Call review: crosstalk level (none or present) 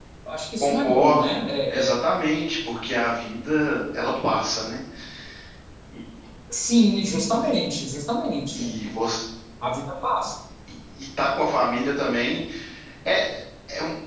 present